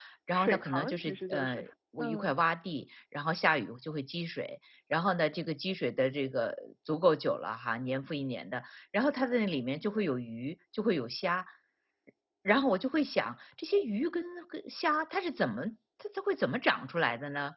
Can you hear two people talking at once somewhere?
Yes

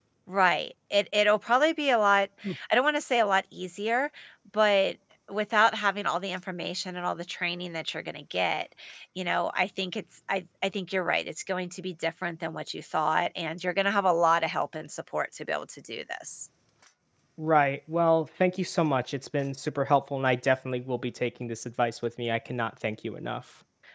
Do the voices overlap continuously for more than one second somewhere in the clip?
No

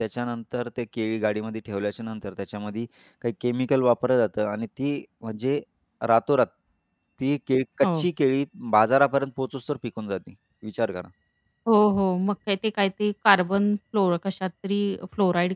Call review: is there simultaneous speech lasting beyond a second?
No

